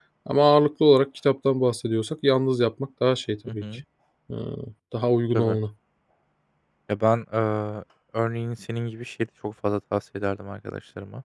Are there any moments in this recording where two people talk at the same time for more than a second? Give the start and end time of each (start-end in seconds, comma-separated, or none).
none